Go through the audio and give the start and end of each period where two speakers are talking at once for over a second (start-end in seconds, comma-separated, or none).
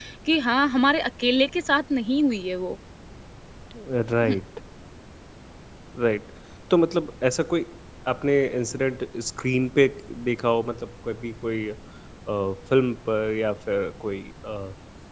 none